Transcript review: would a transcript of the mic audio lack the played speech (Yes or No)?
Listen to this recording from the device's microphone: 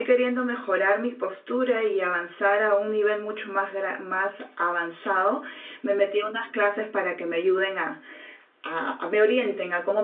Yes